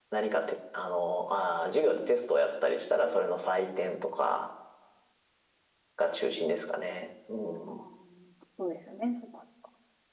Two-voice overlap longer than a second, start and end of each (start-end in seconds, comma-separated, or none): none